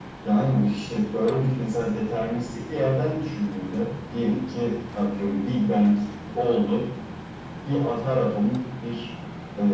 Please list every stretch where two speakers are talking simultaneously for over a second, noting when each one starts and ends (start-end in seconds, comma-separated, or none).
none